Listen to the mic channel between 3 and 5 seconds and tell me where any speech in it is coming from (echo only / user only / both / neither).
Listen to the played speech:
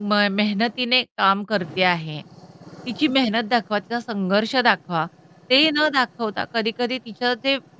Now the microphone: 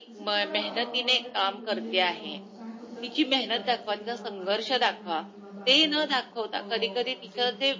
both